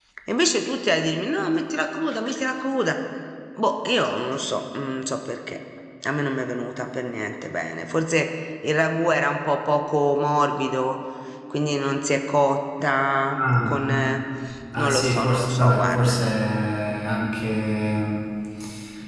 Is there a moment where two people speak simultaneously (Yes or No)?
Yes